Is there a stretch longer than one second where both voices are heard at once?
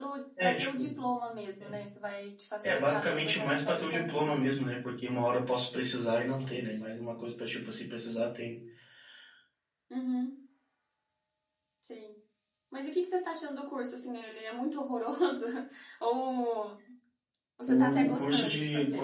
Yes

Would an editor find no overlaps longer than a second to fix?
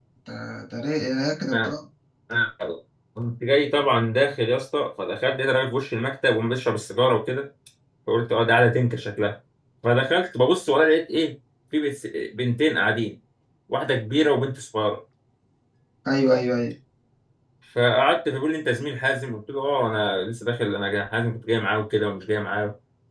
Yes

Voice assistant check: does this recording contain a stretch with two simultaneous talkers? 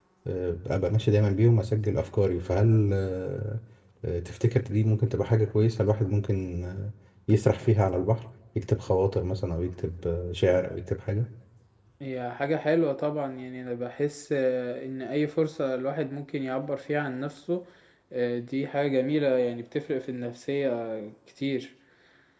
No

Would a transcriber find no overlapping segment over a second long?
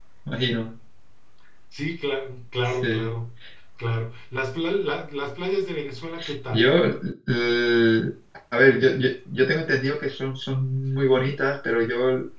Yes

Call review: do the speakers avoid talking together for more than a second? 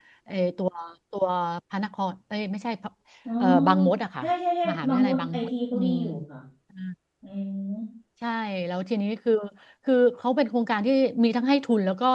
No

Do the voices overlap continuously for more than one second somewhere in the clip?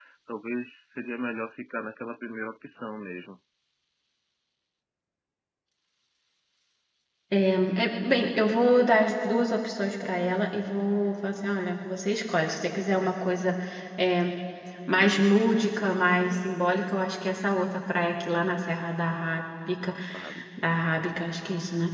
No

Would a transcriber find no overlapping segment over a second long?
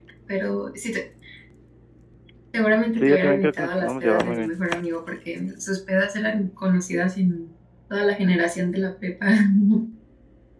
No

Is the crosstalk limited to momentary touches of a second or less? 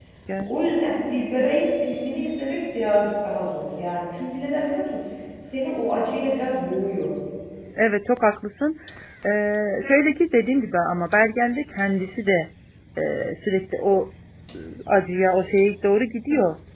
Yes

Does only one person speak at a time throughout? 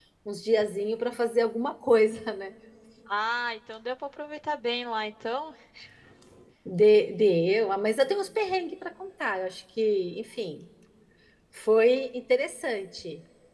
Yes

